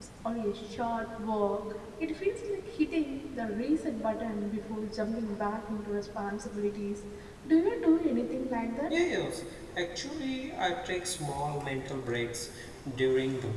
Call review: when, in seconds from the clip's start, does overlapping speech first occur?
none

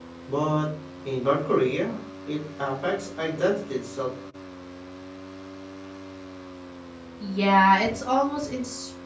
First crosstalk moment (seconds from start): none

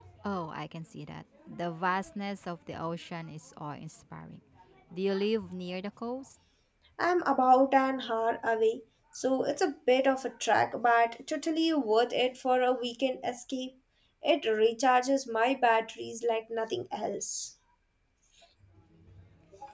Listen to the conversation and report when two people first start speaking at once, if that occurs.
none

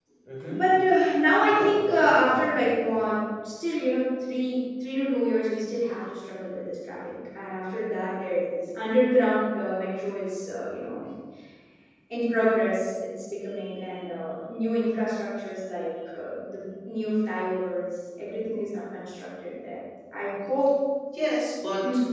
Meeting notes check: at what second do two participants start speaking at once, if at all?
1.5 s

